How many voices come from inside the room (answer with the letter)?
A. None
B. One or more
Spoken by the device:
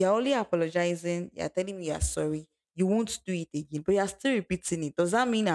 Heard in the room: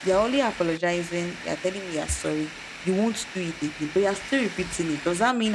A